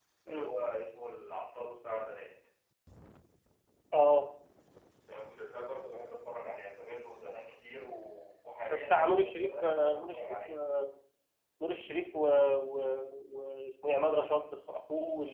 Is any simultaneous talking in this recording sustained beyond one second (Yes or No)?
Yes